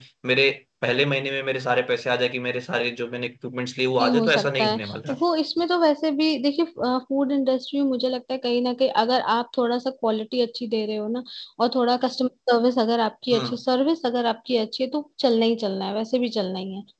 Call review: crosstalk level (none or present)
present